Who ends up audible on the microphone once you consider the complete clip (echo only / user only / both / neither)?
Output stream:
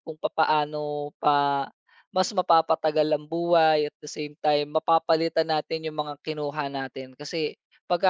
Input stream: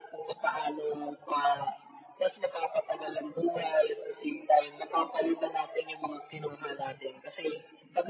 echo only